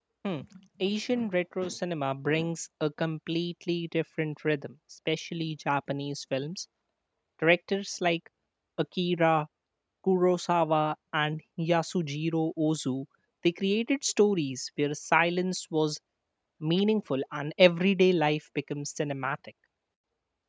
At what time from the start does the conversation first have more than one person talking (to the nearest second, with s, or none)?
none